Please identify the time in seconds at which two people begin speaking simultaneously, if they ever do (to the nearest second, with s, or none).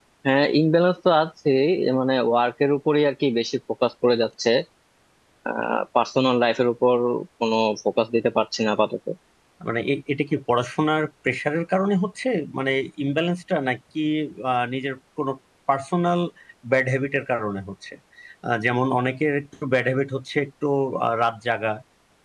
none